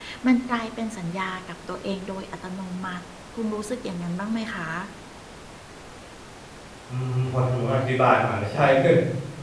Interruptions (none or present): none